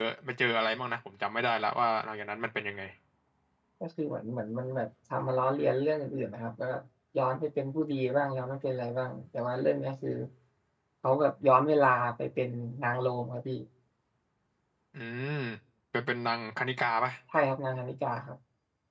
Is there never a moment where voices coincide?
Yes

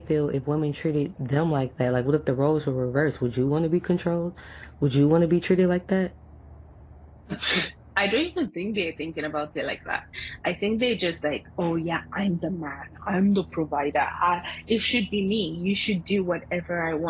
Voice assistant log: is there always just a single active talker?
Yes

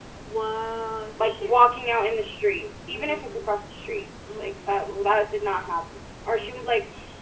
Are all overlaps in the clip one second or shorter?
Yes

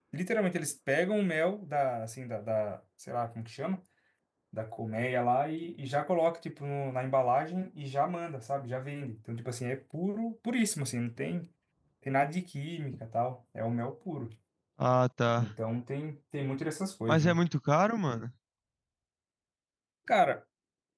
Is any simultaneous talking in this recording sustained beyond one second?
No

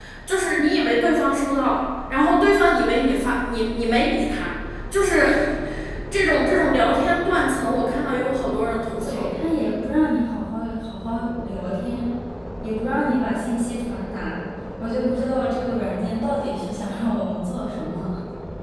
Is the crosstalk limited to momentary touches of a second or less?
Yes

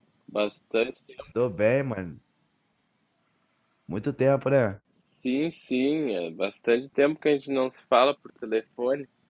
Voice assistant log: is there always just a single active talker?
Yes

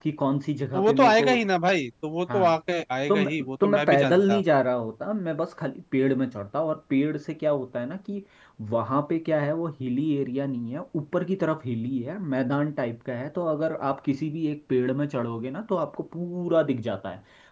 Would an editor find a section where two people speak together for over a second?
Yes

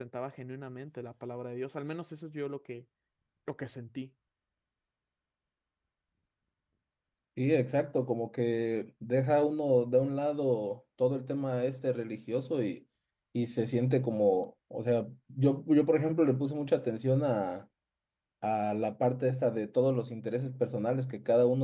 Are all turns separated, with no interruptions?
Yes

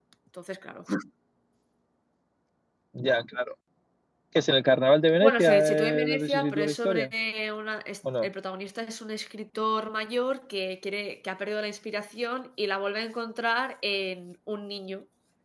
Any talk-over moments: Yes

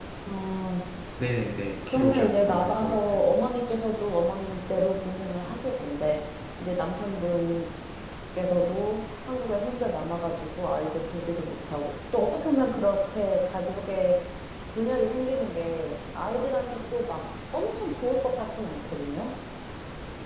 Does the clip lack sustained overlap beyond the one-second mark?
No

